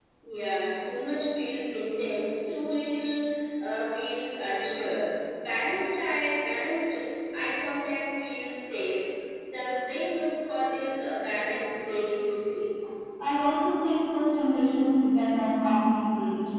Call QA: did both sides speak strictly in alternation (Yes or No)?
Yes